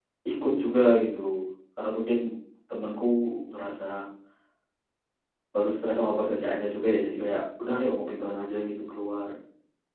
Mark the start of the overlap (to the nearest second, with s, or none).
none